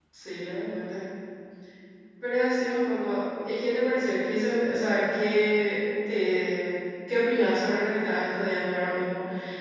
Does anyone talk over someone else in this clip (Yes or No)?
No